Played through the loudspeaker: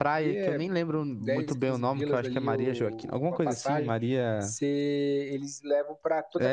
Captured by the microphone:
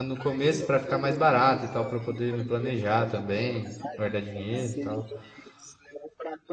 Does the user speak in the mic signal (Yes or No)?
Yes